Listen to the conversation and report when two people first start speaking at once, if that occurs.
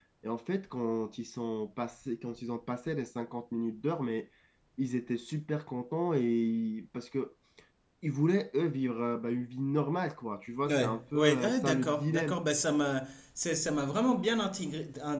10.7 s

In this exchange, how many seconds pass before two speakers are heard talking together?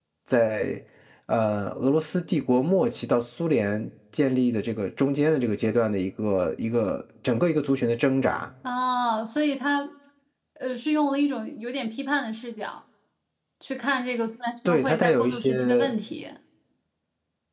14.7 s

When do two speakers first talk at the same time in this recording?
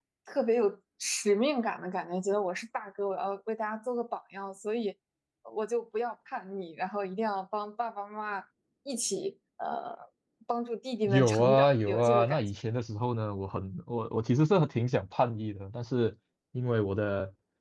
11.1 s

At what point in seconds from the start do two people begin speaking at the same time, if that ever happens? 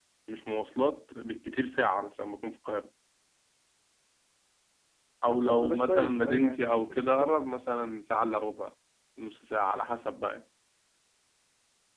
5.3 s

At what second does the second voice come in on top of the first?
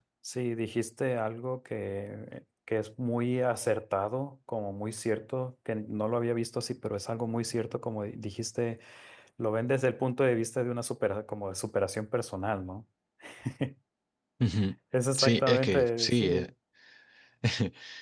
15.2 s

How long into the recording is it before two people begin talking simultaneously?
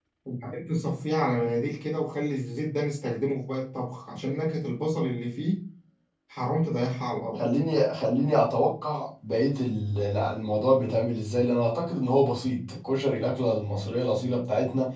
none

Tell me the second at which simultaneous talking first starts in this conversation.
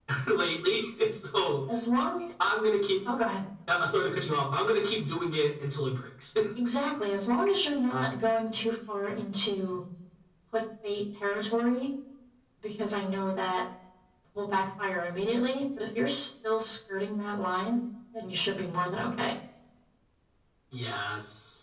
none

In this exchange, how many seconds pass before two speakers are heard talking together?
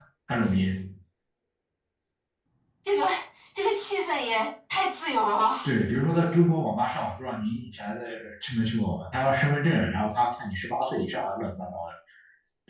none

